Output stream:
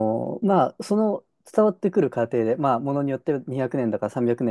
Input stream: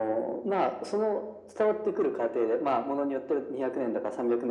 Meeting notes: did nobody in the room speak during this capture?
Yes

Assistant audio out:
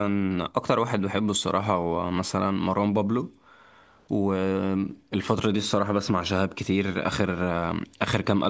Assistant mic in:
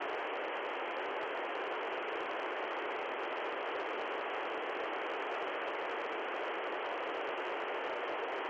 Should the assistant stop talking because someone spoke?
No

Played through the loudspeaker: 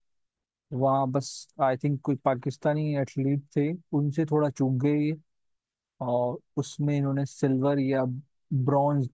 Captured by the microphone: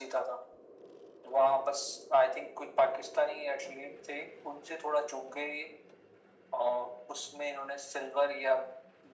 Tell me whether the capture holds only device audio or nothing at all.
Yes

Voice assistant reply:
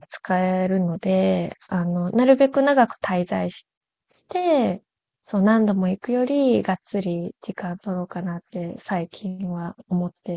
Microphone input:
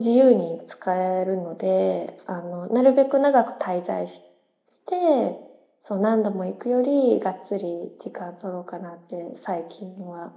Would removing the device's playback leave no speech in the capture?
Yes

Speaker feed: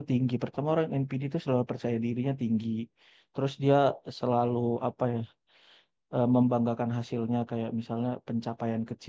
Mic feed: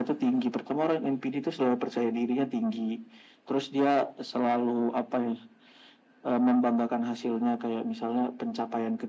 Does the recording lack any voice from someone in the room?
Yes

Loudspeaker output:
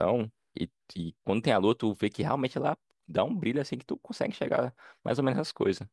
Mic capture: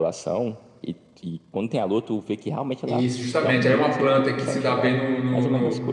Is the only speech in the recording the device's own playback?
No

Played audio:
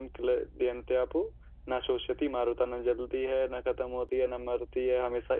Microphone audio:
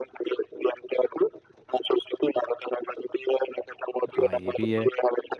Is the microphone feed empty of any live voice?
No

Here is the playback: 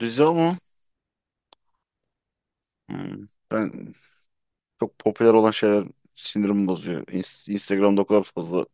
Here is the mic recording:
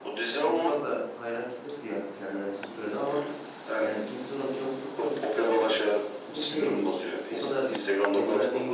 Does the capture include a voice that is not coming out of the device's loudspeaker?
Yes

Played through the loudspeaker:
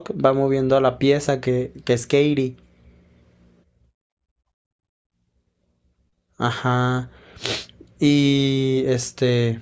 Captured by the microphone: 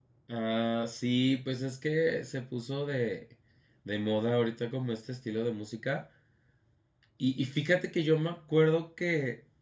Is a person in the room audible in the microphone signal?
Yes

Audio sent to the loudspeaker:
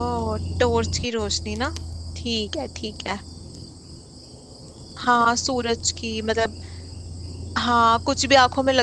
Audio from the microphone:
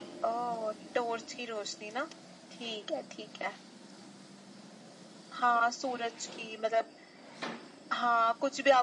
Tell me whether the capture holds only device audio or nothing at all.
Yes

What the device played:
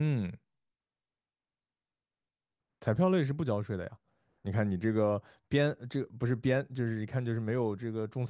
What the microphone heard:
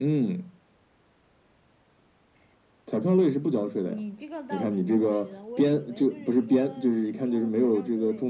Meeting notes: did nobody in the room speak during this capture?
No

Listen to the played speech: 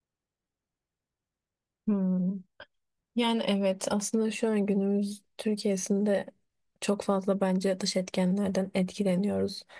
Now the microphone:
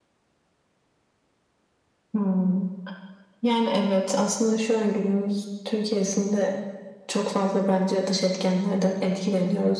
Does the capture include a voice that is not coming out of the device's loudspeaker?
No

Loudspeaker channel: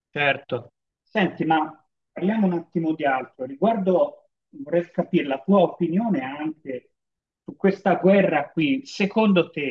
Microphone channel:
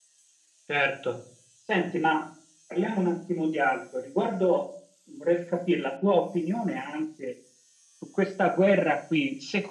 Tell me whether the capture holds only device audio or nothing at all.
Yes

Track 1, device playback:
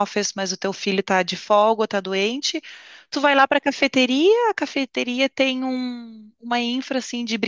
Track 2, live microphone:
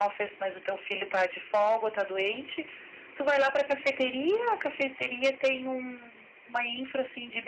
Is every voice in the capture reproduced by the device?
Yes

